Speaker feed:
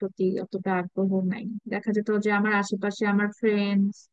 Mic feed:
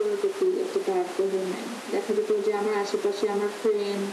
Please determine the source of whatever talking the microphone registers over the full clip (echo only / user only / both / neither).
echo only